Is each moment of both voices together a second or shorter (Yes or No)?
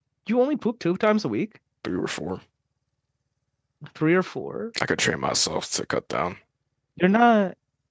Yes